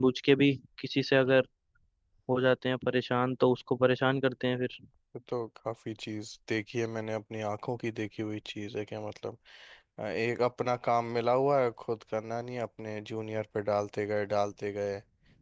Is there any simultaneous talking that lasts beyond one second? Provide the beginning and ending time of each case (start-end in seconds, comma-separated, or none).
none